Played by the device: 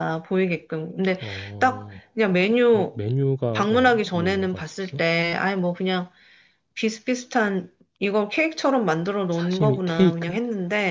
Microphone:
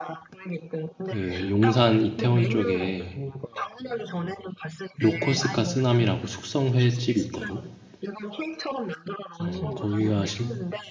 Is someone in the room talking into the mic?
Yes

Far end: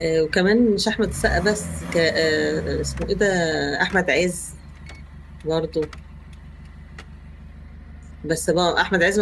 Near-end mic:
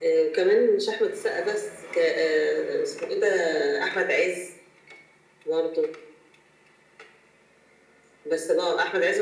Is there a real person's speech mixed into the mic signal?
No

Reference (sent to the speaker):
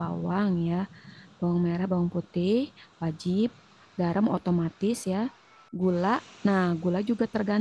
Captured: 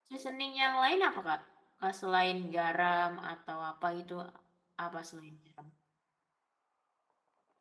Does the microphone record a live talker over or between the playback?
Yes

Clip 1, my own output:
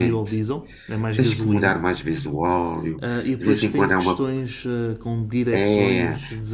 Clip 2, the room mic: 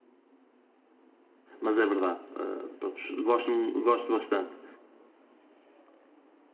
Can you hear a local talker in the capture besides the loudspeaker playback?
Yes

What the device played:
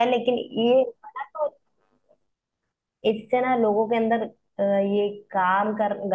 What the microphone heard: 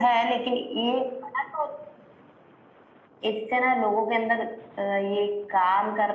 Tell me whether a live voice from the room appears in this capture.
No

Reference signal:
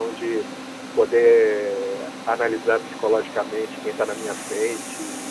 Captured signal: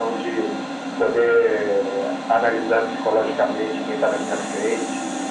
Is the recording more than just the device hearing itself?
No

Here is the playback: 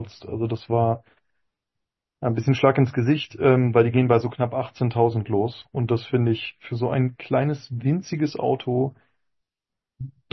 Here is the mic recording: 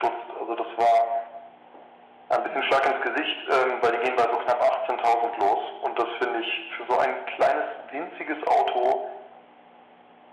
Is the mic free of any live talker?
Yes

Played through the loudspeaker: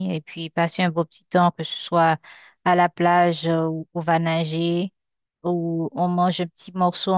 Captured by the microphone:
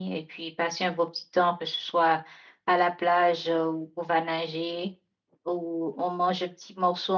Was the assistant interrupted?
No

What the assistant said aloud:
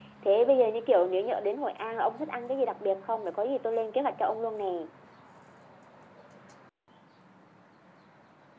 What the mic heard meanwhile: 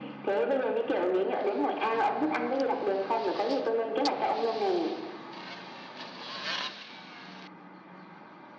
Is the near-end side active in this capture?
No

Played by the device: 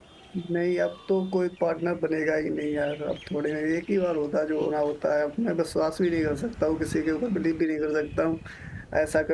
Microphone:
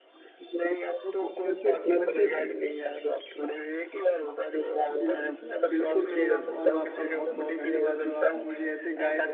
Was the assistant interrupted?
Yes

